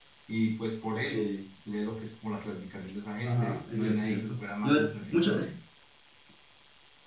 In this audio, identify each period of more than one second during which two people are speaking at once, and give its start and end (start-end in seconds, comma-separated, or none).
3.2-5.5